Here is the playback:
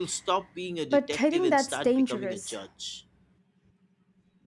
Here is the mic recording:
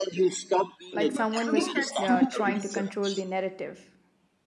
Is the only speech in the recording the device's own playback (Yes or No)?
No